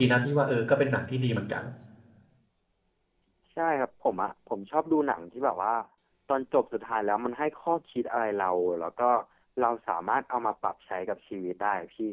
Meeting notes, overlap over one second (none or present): none